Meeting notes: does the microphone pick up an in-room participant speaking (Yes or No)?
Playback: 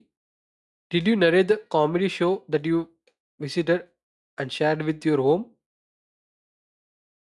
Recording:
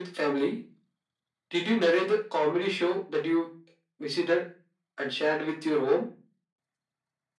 No